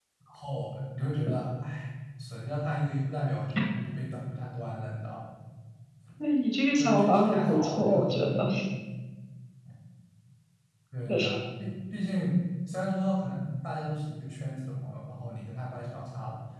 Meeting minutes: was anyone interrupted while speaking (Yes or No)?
Yes